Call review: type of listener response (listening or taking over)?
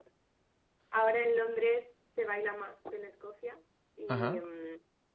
listening